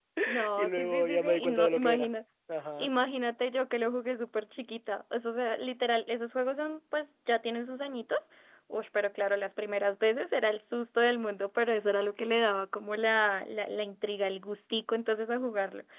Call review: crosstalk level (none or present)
present